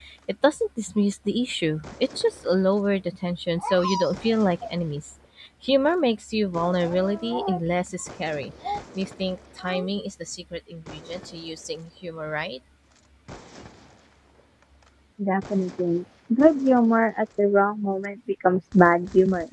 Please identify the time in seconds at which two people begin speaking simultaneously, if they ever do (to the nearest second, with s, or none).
none